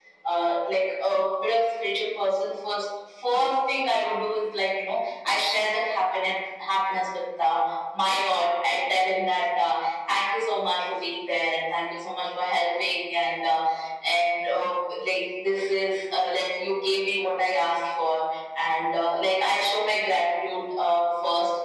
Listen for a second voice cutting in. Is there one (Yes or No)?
No